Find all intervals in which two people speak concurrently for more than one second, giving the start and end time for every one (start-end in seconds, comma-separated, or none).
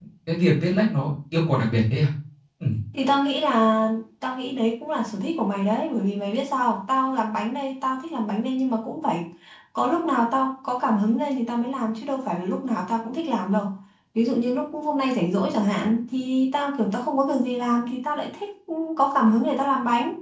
none